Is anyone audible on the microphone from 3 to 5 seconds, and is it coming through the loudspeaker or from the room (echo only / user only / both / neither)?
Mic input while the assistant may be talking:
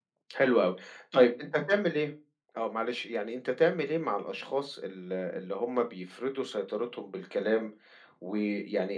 echo only